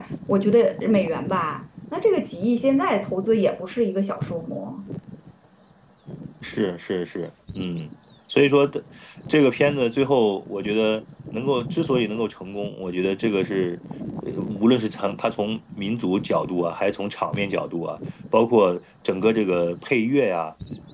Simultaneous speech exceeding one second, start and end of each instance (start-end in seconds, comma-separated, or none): none